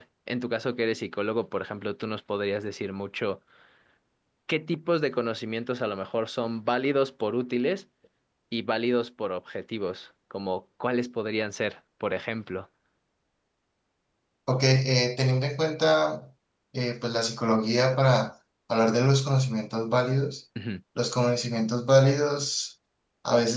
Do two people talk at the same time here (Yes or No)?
No